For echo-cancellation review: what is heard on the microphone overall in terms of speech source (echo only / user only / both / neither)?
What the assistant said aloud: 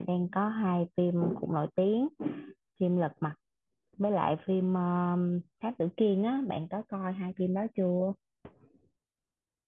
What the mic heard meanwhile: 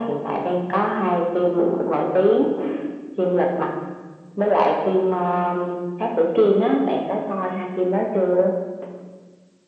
echo only